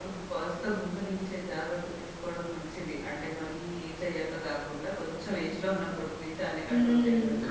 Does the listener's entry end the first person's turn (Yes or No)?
Yes